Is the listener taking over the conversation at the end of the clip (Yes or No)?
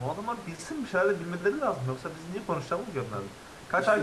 No